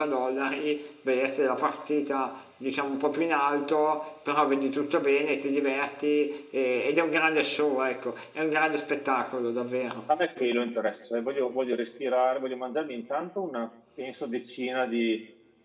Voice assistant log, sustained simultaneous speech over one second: none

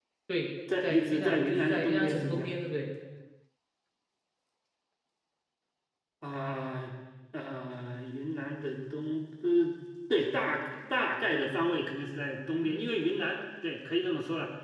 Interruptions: present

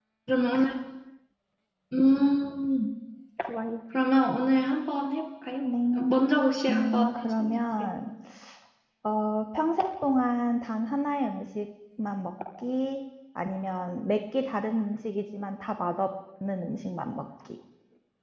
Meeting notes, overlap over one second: present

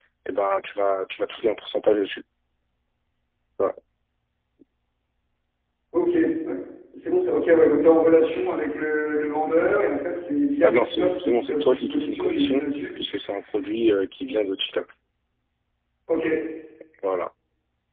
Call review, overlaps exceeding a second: present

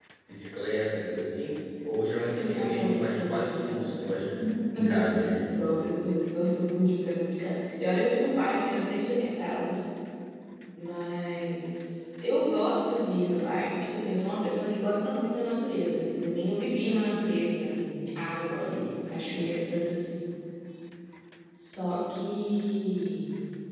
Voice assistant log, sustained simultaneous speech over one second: present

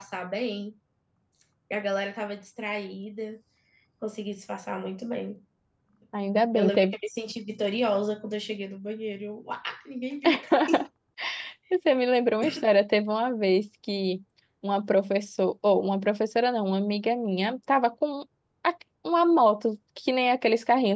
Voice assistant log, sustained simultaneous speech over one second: none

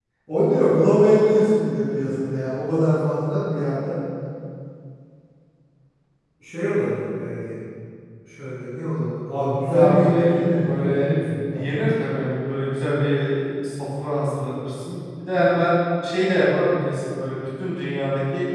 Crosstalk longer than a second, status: present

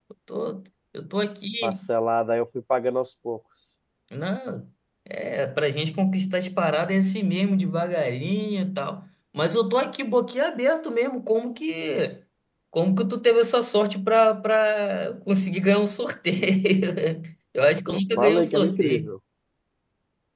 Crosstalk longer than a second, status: present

